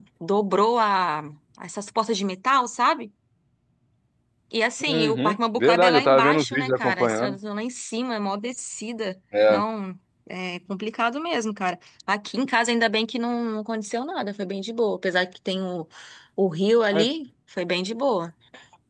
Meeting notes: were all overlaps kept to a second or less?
No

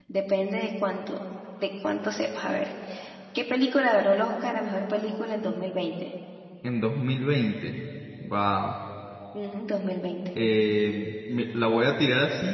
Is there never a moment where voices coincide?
Yes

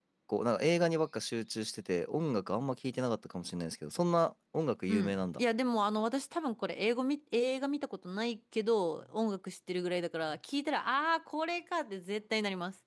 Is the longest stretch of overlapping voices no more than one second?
Yes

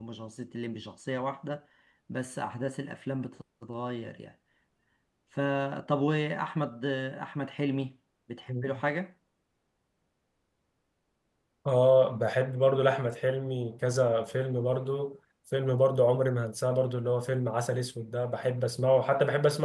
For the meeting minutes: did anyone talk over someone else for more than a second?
No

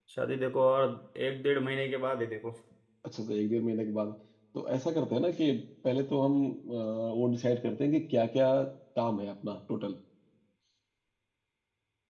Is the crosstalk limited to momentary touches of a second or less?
Yes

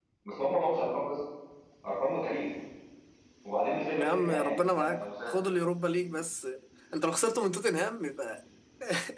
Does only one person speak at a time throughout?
No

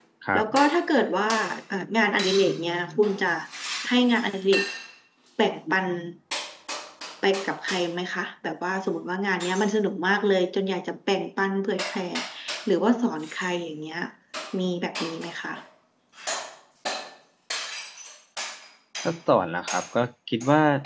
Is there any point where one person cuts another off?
No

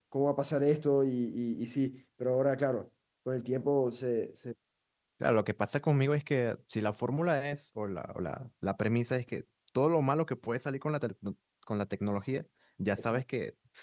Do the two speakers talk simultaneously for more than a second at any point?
No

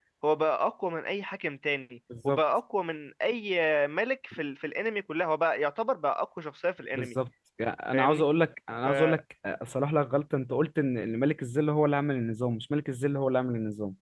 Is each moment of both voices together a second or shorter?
Yes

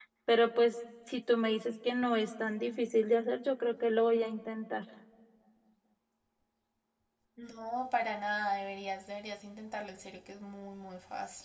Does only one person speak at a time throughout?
Yes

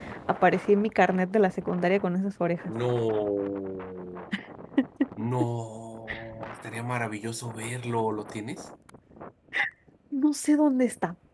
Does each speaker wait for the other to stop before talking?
Yes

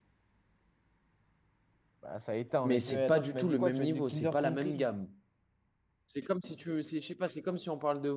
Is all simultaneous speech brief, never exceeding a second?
No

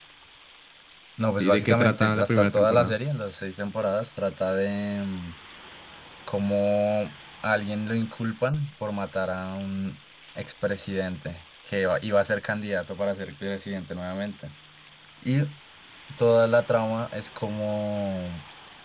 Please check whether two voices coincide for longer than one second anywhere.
Yes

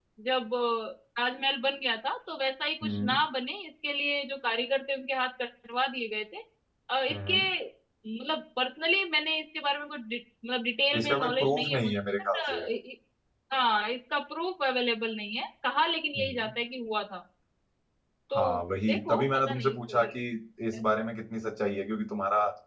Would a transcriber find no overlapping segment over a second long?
No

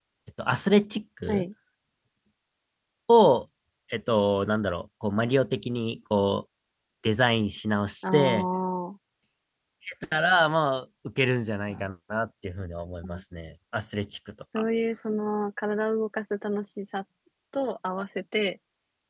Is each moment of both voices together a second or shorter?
Yes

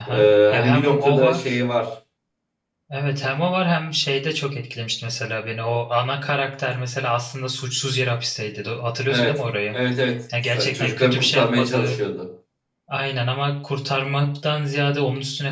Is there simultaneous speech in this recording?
Yes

